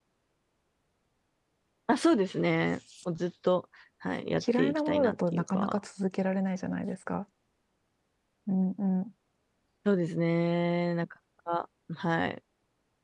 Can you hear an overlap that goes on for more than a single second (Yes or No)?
Yes